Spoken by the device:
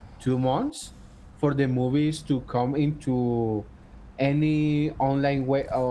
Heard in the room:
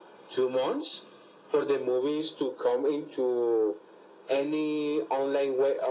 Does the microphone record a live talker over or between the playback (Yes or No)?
No